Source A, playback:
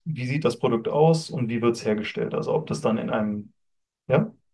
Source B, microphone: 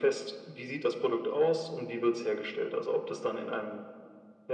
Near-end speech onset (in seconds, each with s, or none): none